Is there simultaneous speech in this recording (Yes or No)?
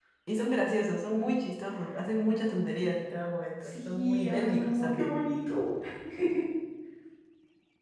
Yes